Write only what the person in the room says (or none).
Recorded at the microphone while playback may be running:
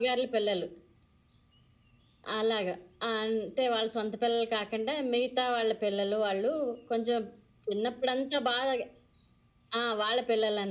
none